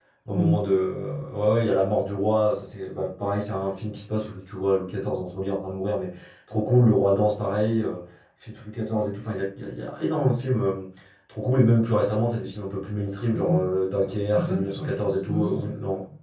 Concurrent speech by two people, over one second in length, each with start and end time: 14.3-15.7

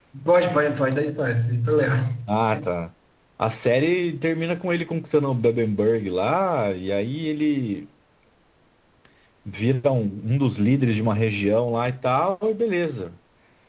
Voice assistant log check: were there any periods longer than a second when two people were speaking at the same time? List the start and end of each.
none

